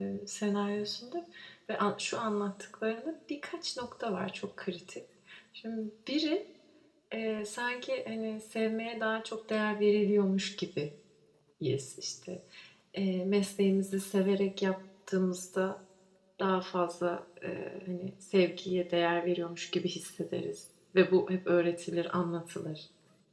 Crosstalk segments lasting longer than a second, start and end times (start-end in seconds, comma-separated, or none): none